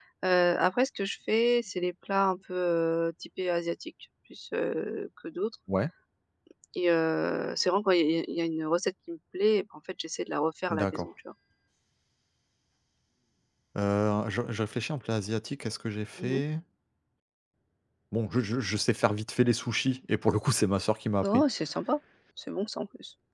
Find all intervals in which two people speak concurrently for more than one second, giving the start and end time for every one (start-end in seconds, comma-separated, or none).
none